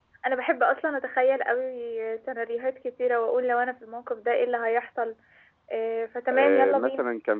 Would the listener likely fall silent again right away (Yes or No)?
No